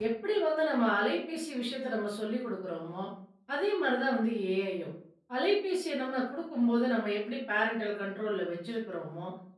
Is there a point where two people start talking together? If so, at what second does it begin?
none

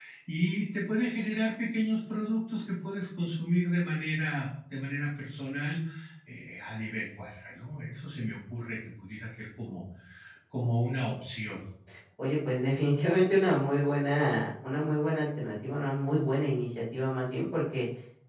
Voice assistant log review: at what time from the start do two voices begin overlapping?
none

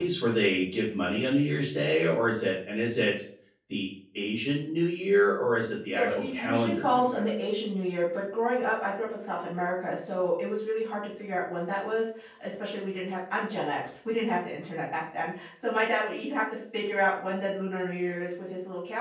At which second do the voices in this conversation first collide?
5.9 s

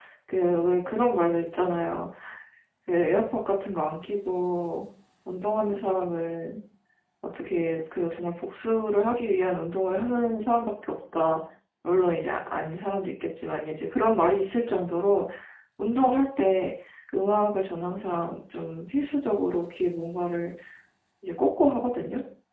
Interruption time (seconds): none

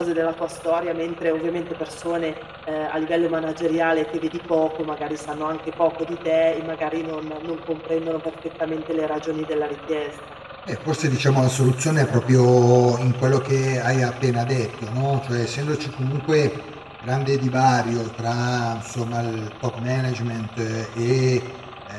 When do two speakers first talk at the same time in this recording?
none

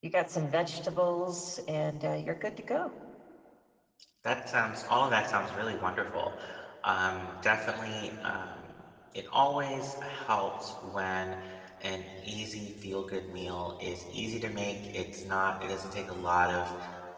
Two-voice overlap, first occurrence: none

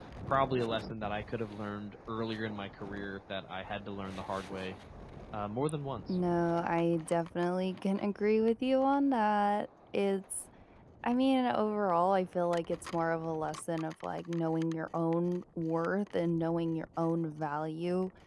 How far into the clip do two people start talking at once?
none

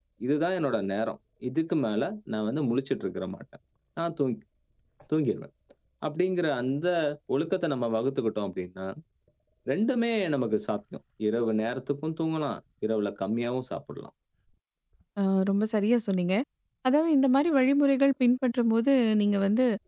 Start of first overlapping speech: none

